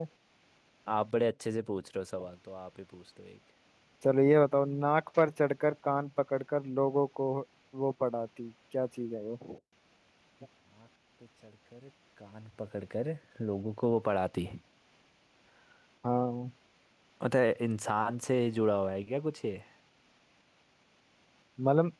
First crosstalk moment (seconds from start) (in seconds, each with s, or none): none